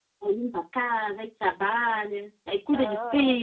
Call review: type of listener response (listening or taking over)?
taking over